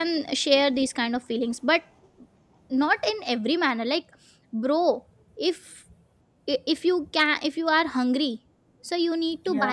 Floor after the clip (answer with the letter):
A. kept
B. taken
A